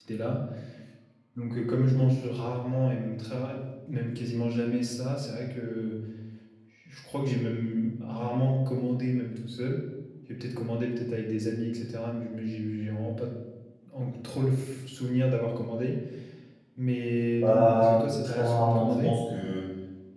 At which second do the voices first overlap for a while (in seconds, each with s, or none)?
17.4 s